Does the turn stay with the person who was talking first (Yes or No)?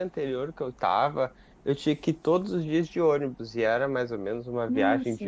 Yes